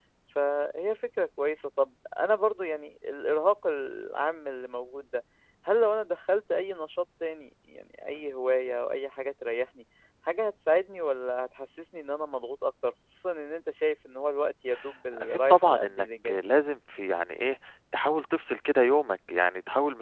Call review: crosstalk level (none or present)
present